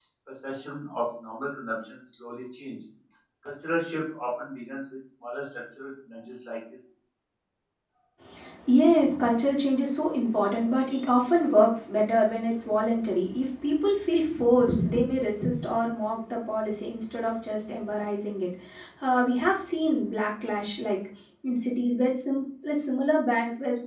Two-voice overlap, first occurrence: none

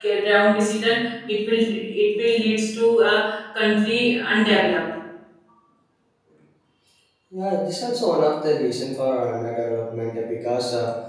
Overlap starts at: none

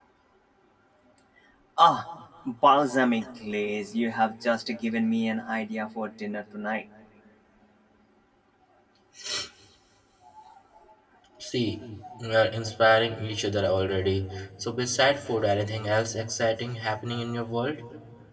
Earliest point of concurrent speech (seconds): none

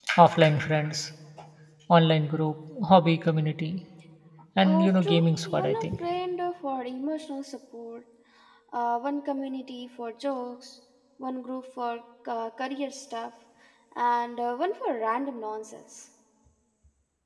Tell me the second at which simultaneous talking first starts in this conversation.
4.6 s

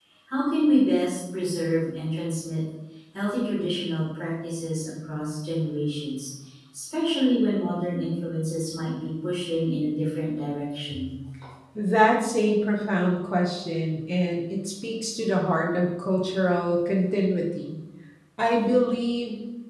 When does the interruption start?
none

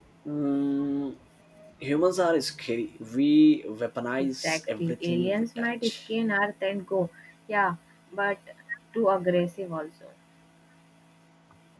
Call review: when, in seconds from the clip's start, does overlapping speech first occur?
4.2 s

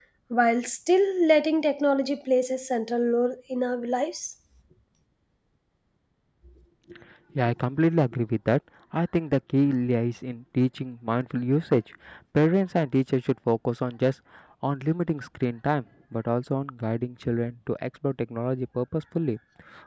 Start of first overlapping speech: none

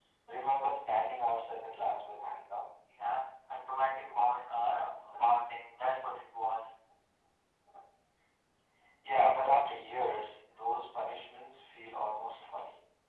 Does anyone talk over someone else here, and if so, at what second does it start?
none

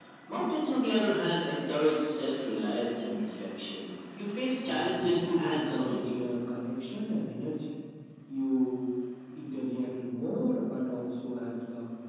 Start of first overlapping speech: 4.6 s

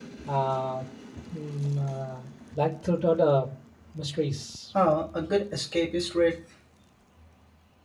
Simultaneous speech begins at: none

